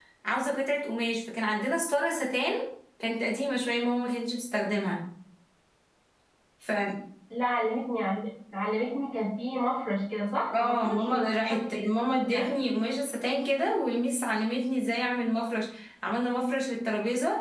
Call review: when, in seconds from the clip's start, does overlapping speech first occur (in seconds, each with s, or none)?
10.5 s